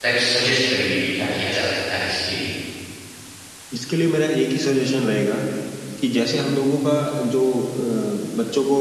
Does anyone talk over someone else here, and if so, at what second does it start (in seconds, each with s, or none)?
none